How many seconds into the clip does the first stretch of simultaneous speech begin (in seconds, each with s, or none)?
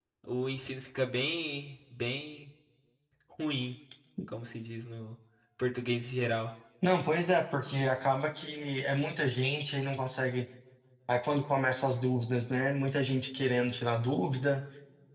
none